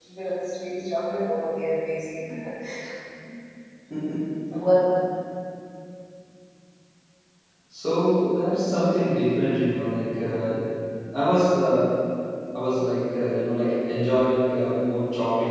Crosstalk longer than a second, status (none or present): none